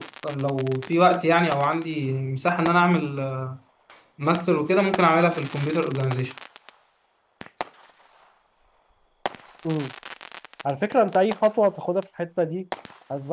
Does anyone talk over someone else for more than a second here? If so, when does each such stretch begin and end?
none

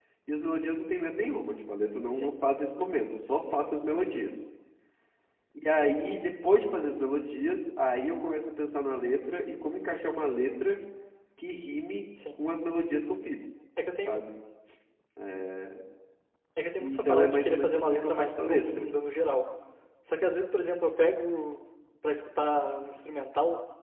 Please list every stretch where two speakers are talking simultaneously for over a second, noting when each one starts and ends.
16.8-18.9

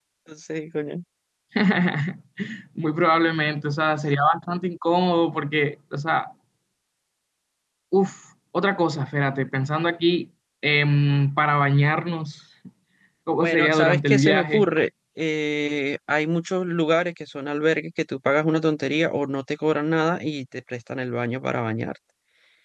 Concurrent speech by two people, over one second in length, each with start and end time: 13.4-14.7

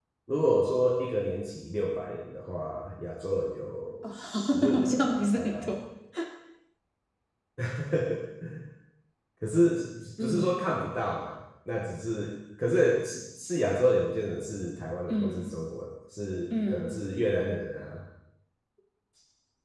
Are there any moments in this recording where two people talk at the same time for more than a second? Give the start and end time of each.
4.1-5.7

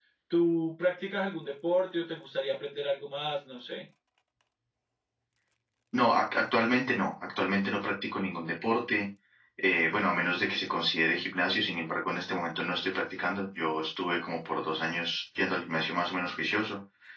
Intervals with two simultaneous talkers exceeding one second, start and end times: none

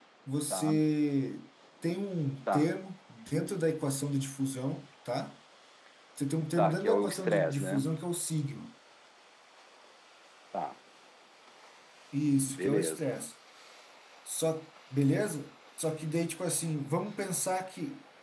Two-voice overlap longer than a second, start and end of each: 6.6-7.9

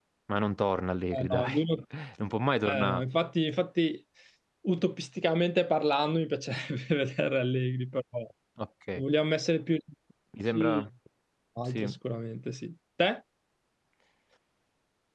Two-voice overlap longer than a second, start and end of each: none

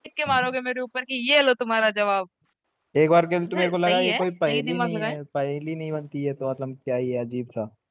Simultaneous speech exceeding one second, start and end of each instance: 3.5-5.1

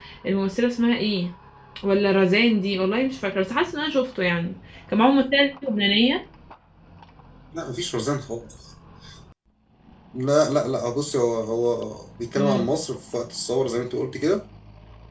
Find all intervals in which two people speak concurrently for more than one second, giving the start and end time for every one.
none

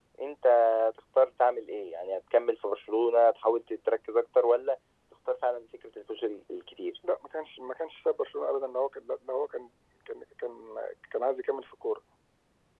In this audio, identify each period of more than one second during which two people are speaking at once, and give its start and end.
none

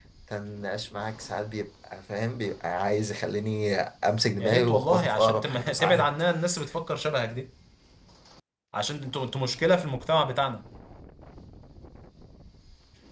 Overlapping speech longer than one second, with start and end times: 4.4-6.1

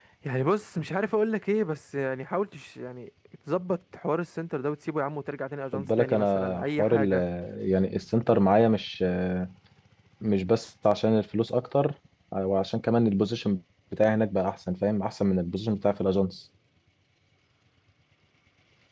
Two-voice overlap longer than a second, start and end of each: 5.7-7.1

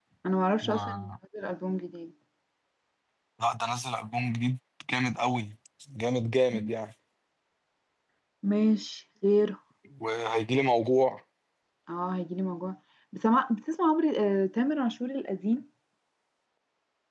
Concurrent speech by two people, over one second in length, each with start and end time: none

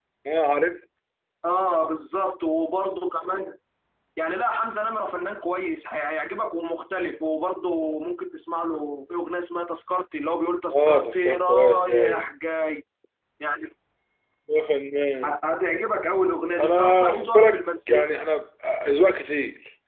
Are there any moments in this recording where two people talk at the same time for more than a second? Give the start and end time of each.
10.7-12.3, 16.6-18.2

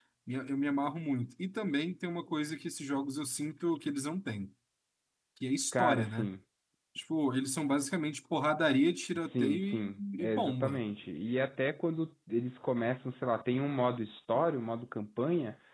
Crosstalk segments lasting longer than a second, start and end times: 9.2-10.8

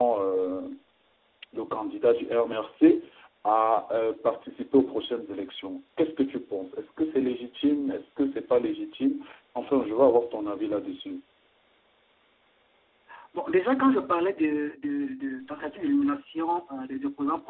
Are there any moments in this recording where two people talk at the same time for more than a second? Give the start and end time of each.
none

